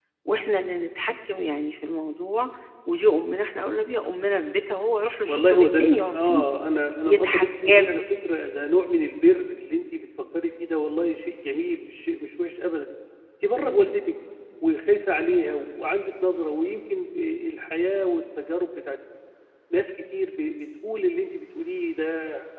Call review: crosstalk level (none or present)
present